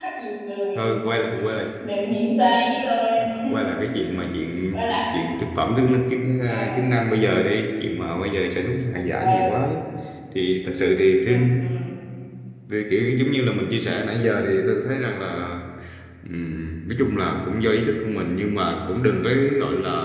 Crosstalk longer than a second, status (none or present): none